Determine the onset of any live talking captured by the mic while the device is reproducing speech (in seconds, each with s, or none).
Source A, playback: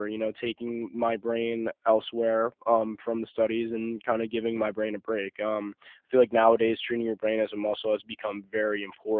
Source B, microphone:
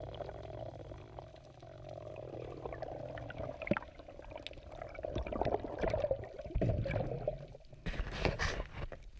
none